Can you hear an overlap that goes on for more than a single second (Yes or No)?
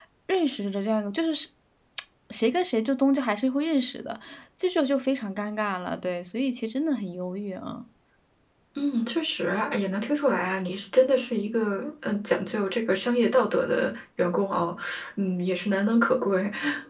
No